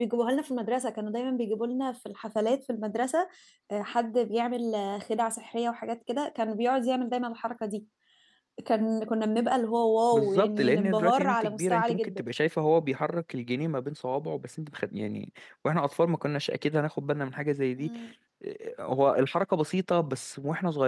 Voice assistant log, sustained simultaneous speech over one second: present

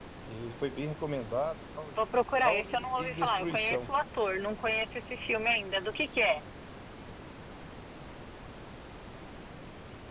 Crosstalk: present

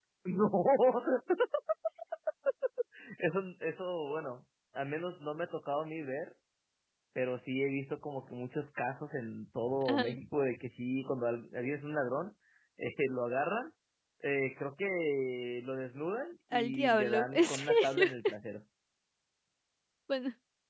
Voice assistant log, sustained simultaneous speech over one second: present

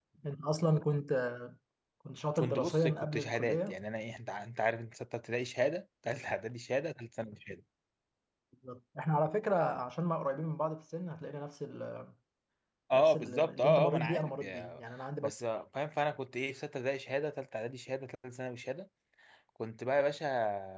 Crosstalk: present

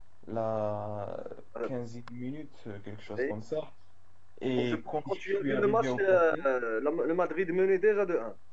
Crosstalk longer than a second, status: present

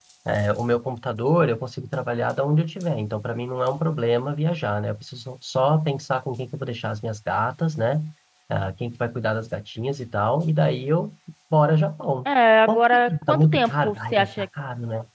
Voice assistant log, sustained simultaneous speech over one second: present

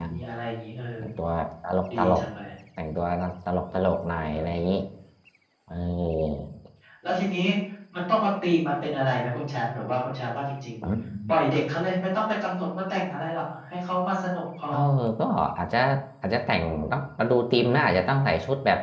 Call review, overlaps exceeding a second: none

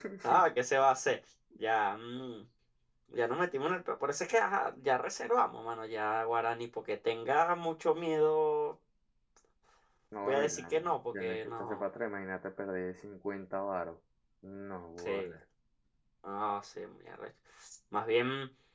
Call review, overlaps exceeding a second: present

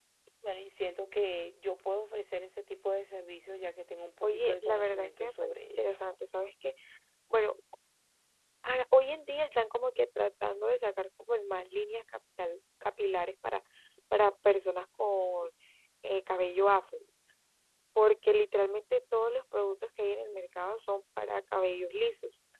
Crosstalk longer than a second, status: present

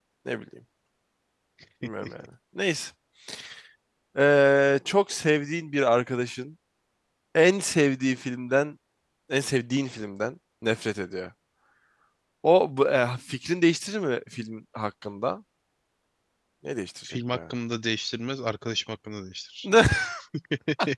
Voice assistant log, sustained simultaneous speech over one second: none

